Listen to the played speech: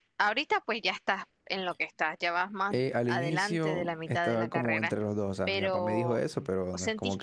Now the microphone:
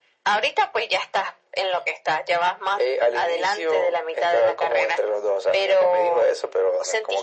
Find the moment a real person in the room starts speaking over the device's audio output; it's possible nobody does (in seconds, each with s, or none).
none